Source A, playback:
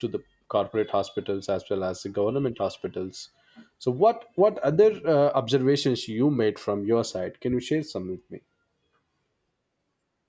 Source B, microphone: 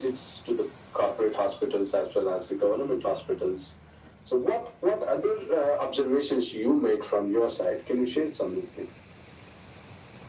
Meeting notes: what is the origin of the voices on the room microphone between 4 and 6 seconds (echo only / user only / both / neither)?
echo only